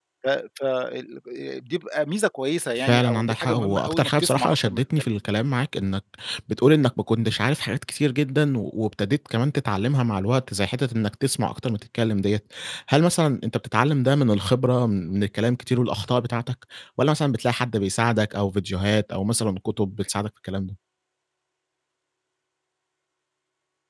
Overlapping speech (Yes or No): Yes